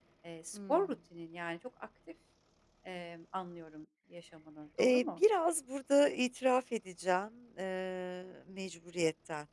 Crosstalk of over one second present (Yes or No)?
No